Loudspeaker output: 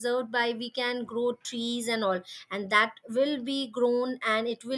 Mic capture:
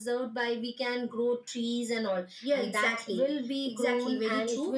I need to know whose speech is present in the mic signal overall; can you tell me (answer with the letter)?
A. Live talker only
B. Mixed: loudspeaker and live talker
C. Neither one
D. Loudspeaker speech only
B